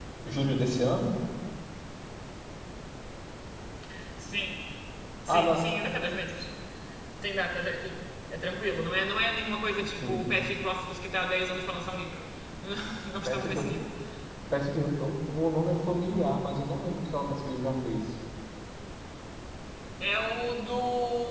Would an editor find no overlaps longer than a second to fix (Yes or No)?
Yes